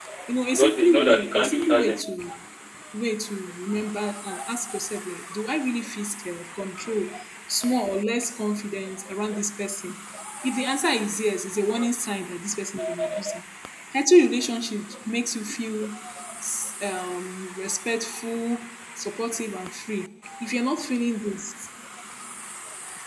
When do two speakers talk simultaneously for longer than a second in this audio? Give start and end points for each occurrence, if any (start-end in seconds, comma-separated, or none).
0.5-2.0